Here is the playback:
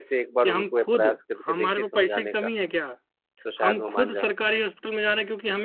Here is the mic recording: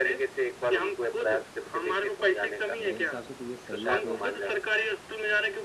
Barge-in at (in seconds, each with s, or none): 2.8 s